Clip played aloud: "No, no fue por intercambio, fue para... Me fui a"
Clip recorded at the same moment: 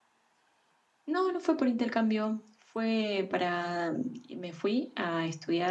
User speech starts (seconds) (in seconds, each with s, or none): none